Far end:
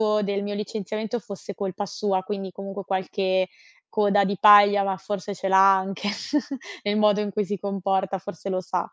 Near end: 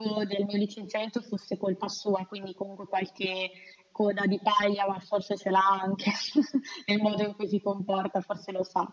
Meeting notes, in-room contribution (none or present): none